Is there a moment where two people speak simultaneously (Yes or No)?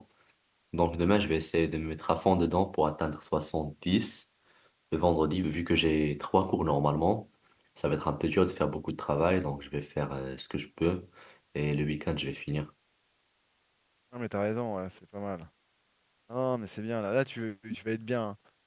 No